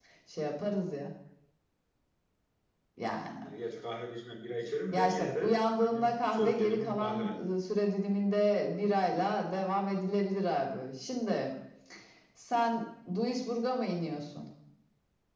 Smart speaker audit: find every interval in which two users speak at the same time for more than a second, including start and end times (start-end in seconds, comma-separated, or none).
4.9-7.4